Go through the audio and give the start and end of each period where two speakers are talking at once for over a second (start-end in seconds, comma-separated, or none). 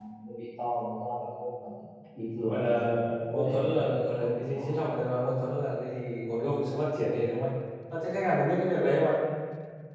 2.4-4.8